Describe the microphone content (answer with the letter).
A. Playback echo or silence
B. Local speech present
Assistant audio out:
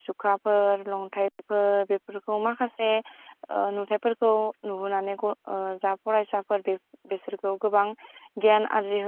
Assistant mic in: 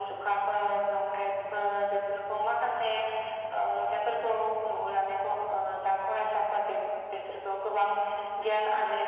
A